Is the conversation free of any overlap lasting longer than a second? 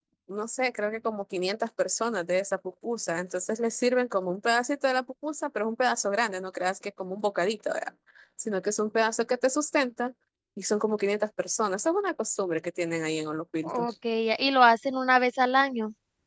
Yes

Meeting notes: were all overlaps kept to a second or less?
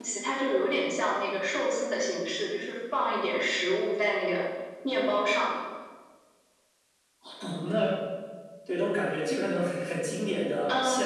Yes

